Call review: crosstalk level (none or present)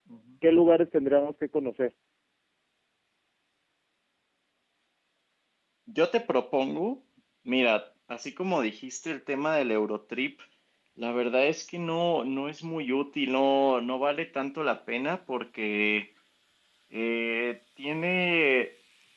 none